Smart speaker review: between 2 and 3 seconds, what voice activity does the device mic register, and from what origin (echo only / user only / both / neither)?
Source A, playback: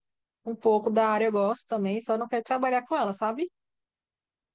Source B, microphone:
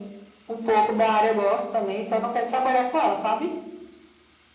echo only